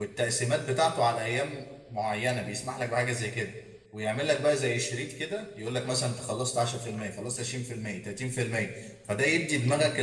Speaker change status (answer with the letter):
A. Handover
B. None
B